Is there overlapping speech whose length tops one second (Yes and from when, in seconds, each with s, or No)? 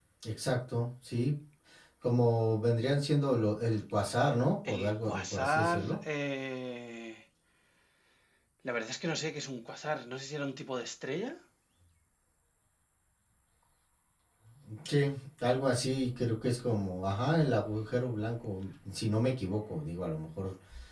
Yes, from 4.7 s